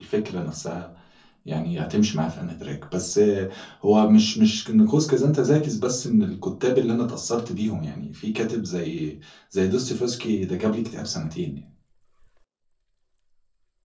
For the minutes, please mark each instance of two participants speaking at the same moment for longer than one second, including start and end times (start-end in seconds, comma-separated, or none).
none